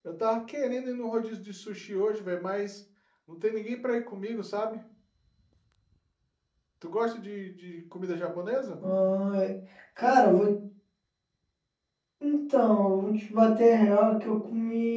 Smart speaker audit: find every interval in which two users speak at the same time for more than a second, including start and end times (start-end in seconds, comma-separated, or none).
none